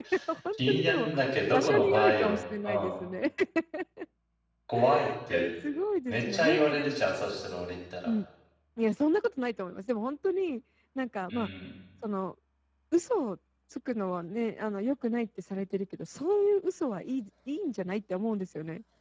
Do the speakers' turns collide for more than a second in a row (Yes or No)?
Yes